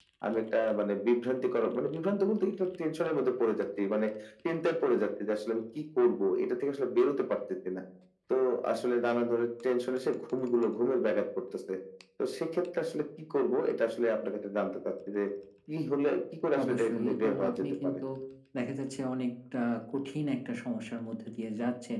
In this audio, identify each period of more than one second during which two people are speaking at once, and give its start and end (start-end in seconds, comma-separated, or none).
16.6-18.0